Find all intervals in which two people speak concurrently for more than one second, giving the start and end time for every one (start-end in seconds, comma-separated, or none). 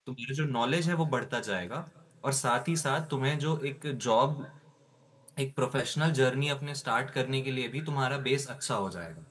none